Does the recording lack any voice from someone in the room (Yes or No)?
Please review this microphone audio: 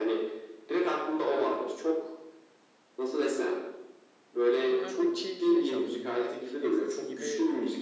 No